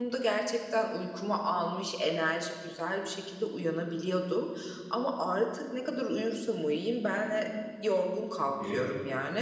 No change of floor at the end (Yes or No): Yes